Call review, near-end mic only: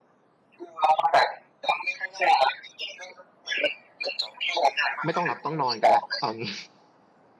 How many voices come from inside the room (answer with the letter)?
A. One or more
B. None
A